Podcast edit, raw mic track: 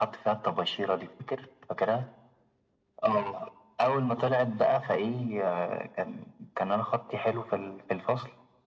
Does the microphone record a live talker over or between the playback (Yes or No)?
No